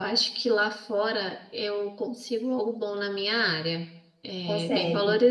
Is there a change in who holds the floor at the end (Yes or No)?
No